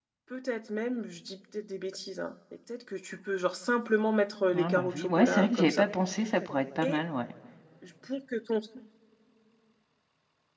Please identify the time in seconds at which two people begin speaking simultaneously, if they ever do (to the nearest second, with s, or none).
5 s